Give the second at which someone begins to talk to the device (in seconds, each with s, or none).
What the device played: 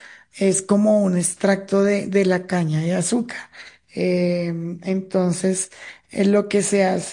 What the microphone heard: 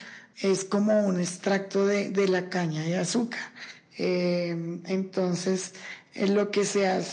none